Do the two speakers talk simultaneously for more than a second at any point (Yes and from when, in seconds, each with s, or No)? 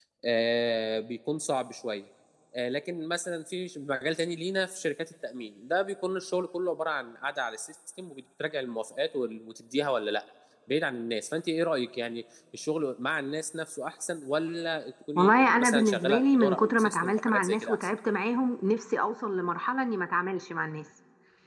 Yes, from 15.2 s